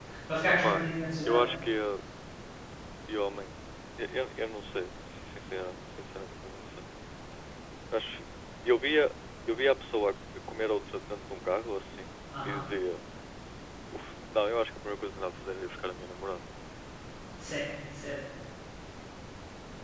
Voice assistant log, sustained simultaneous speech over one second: none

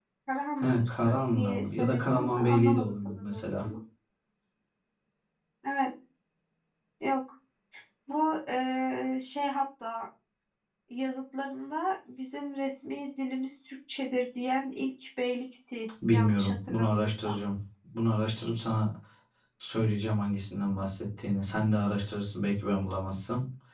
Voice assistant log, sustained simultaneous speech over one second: present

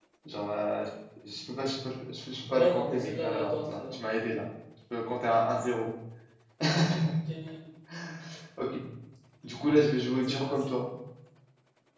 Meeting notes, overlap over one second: present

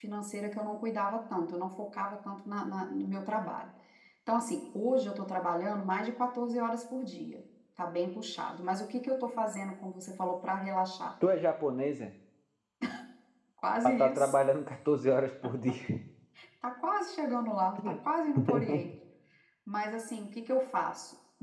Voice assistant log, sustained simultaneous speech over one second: none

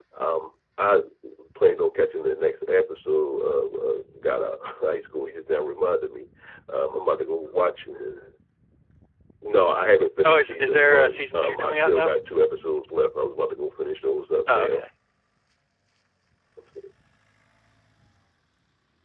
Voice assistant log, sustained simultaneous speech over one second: present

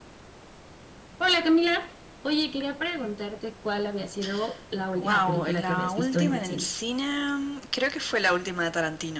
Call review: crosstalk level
present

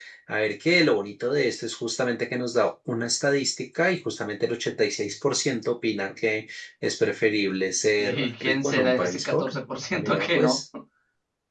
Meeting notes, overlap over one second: present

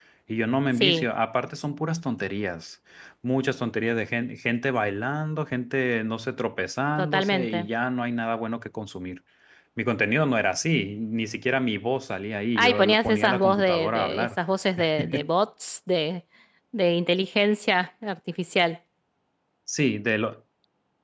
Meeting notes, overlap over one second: present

